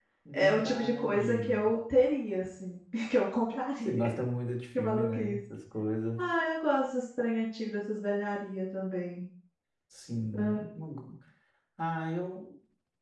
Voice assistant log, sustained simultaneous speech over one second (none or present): present